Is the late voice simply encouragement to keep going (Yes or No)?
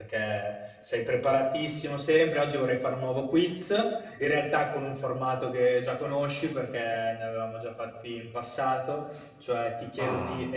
Yes